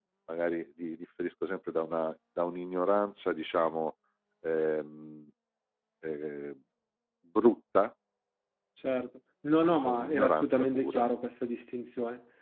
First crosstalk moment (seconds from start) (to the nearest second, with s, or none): 10 s